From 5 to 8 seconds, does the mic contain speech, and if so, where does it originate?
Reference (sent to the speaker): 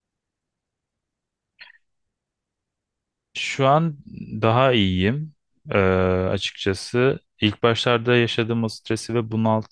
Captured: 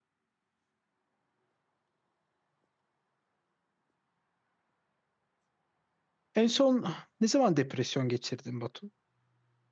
user only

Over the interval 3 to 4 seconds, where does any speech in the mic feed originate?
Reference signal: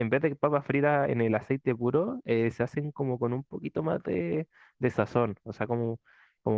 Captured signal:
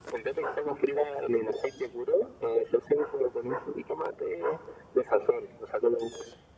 echo only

